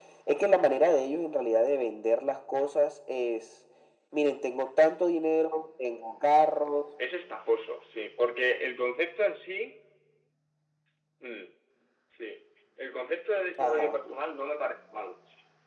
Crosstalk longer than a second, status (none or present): none